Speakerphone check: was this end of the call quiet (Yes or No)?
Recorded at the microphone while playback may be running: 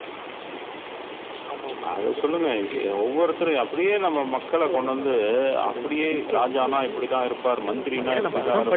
No